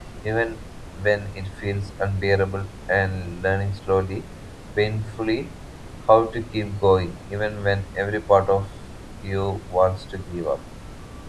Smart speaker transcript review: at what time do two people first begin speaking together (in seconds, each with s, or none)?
none